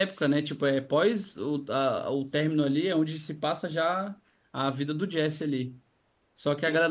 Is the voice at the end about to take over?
No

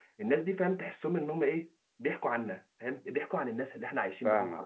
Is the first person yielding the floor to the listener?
Yes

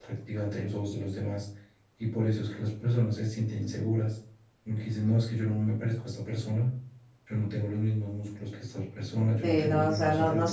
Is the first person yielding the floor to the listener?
Yes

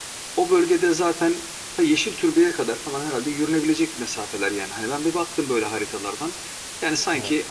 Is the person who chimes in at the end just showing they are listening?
Yes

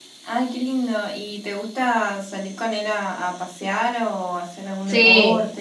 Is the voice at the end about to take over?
Yes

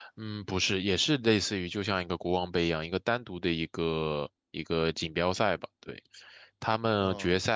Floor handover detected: No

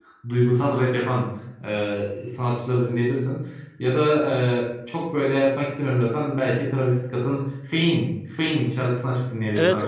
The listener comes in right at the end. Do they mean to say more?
Yes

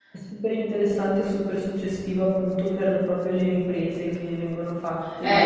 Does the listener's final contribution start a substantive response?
Yes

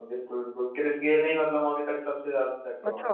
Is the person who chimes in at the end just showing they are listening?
No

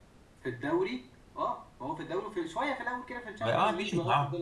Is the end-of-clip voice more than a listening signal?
Yes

